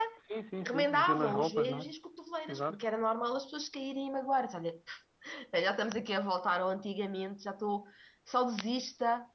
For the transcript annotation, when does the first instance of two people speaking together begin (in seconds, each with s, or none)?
0.6 s